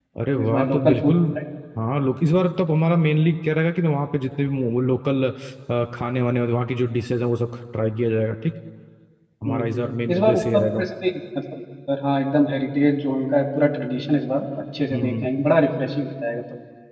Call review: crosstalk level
present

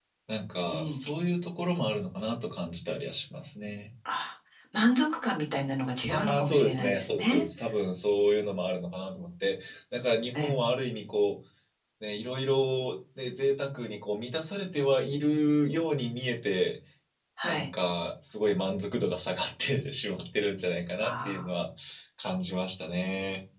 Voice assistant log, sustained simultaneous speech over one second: present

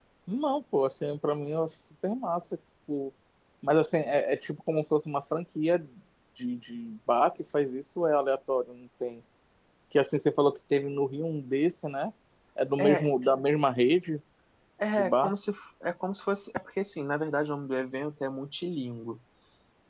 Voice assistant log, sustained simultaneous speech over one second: none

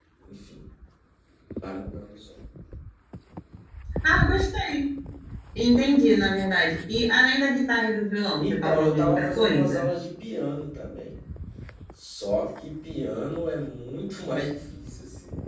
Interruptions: present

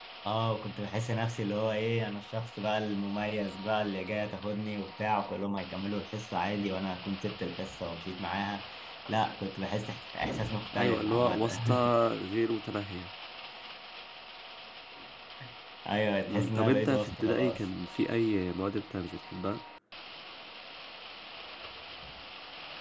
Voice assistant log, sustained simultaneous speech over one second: present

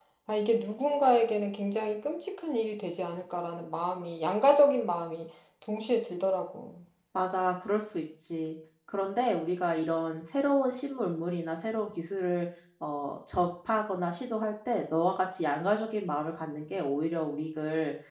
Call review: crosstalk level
none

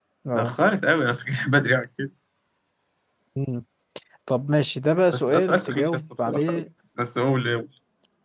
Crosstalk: present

